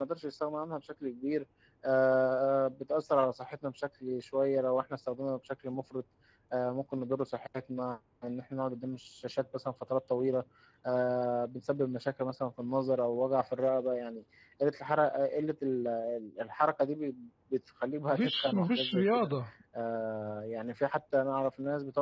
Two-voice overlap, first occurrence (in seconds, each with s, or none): 18.1 s